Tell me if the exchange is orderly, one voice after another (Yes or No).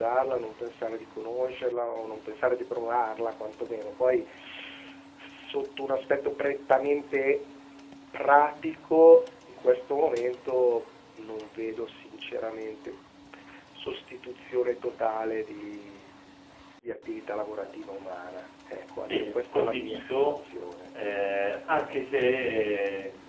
No